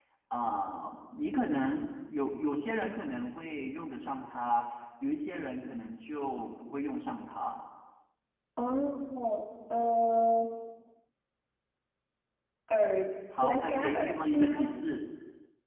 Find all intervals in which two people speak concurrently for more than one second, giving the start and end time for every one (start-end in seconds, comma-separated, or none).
13.4-14.7